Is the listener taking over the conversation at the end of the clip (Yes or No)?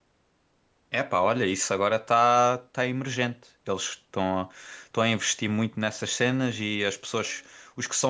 No